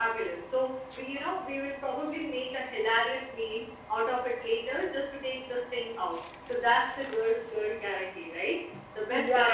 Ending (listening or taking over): taking over